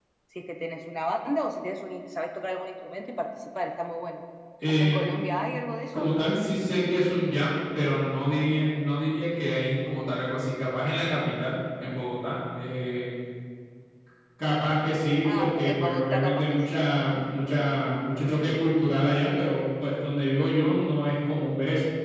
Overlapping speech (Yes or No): Yes